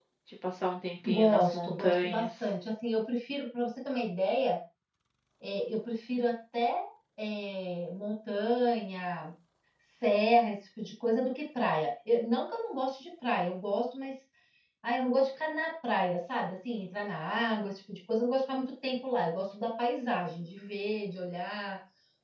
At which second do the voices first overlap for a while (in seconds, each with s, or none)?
1.1 s